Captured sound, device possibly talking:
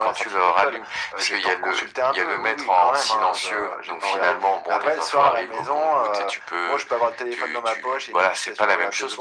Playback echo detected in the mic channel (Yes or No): Yes